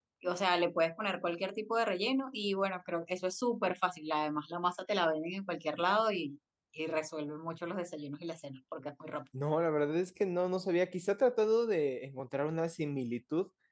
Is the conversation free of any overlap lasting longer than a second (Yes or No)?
Yes